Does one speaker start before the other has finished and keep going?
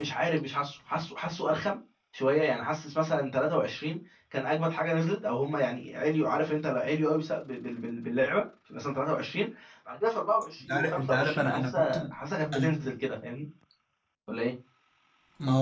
Yes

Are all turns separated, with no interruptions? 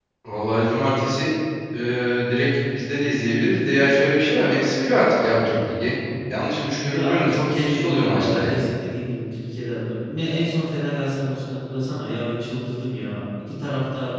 No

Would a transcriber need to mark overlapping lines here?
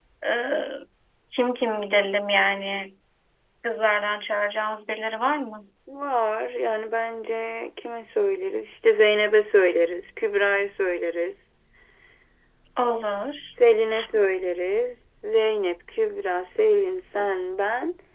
No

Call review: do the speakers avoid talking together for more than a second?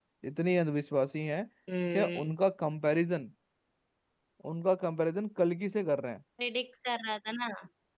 Yes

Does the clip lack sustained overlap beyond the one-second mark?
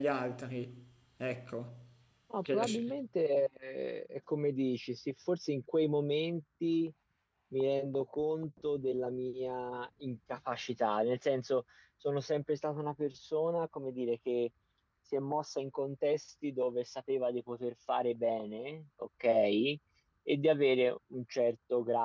Yes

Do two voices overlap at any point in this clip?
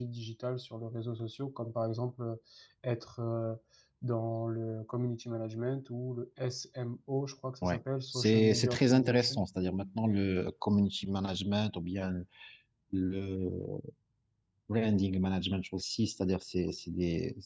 Yes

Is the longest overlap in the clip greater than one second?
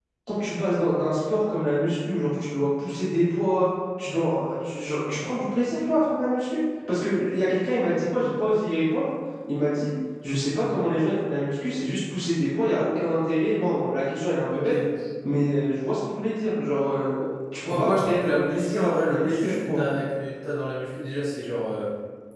Yes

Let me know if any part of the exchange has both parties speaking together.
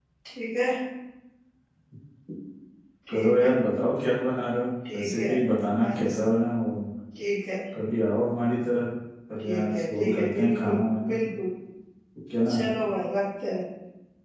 Yes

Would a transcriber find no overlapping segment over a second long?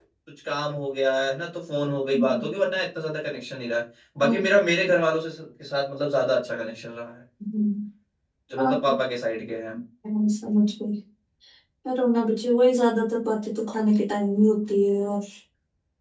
Yes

